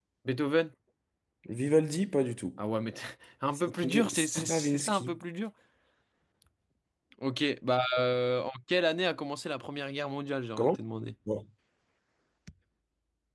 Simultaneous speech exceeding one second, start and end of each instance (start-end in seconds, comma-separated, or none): 3.6-5.2